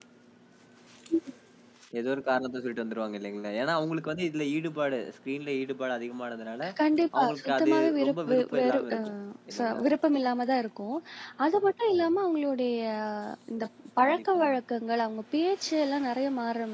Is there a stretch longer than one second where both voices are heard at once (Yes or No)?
Yes